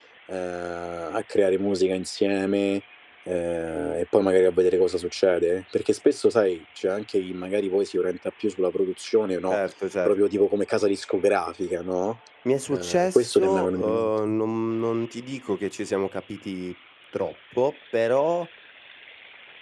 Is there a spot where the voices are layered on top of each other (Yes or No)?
Yes